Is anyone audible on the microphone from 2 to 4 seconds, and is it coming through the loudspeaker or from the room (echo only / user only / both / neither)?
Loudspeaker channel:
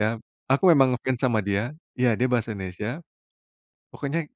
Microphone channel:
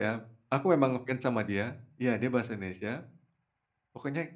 echo only